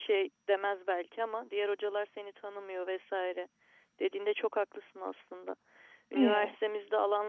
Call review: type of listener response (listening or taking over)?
listening